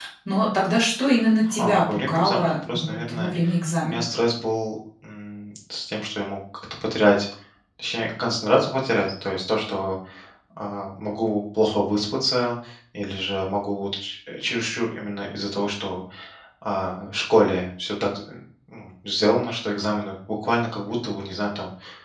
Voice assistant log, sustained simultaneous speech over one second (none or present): present